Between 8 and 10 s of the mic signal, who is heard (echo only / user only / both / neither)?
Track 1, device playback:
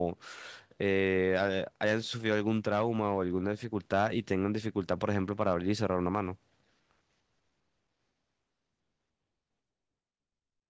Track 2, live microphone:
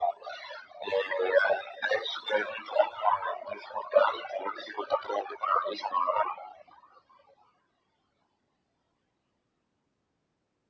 neither